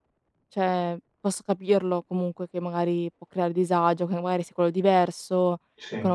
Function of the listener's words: listening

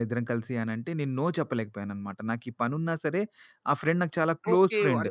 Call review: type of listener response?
taking over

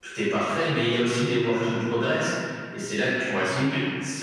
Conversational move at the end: listening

